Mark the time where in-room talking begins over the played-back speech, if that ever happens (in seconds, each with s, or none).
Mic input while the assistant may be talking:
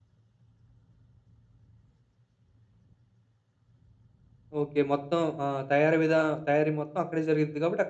4.6 s